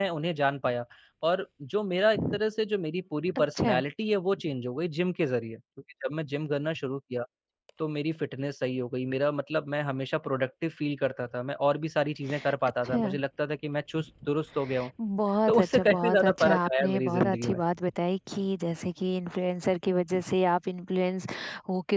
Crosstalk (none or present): present